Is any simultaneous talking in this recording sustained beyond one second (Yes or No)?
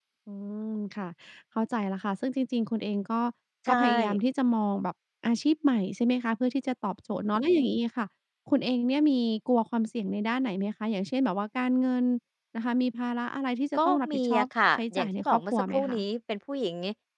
Yes